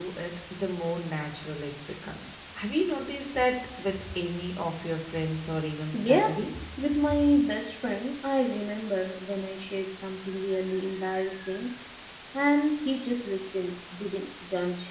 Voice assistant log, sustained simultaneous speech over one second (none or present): none